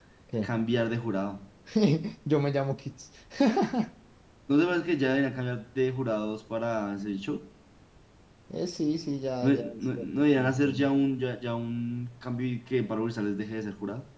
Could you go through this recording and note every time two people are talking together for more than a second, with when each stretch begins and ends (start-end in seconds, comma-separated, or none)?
9.4-10.9